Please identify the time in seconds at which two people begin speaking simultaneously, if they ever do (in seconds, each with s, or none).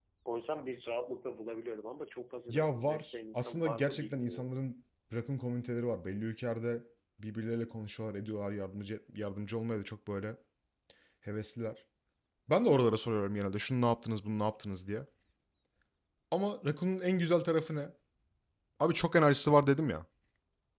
2.5 s